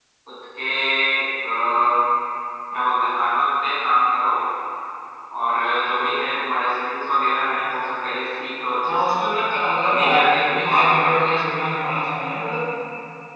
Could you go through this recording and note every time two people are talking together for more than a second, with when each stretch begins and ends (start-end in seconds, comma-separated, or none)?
9.8-11.4